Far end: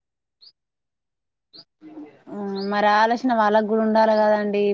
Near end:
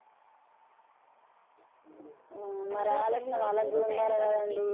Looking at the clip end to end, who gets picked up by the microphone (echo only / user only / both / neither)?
both